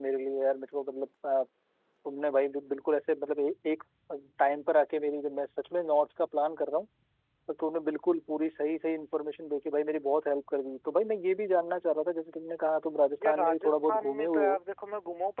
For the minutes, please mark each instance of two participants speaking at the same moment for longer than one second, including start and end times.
13.2-14.6

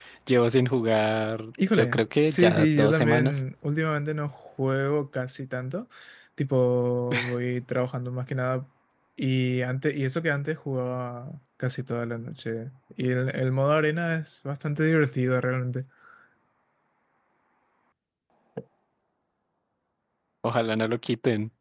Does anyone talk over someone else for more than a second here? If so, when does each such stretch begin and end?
1.7-3.4

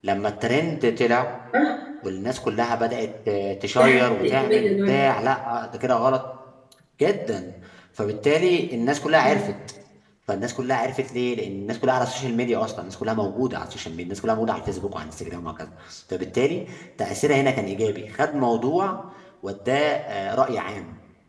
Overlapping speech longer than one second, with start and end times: 3.8-5.0

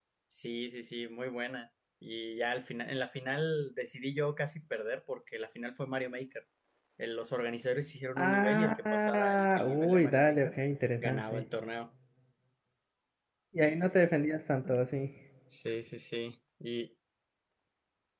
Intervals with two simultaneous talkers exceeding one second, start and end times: 8.2-10.5

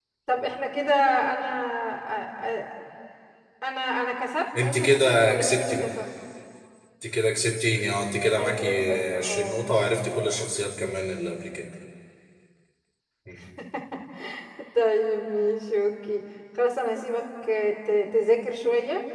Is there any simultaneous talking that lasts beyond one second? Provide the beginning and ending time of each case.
4.6-5.9, 8.4-9.6

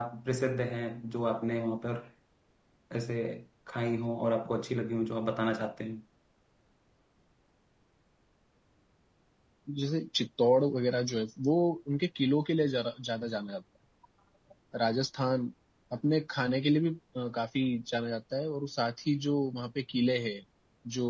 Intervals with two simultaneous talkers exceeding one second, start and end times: none

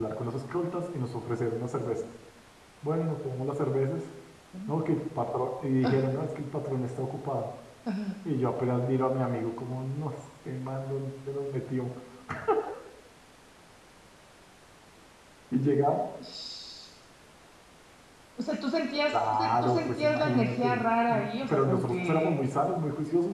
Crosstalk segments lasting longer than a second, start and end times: 19.1-22.3

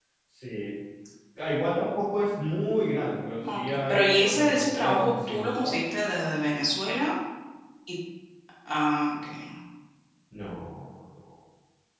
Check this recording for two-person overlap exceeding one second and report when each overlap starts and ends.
3.4-5.7

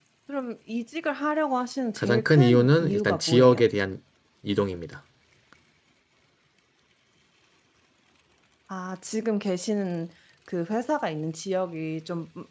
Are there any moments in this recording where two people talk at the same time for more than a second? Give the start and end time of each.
2.0-3.6

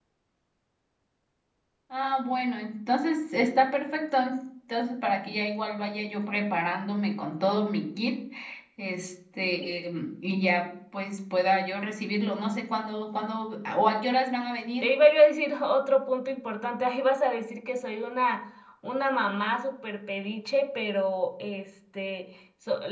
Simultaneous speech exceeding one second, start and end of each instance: none

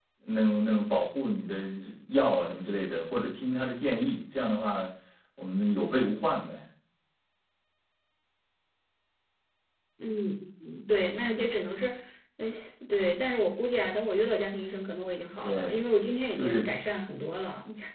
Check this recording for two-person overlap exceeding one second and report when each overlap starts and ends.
none

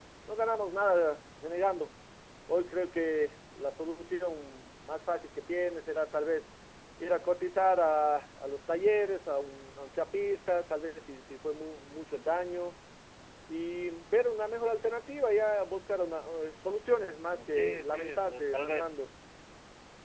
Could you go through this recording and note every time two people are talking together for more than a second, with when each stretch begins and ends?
17.3-18.9

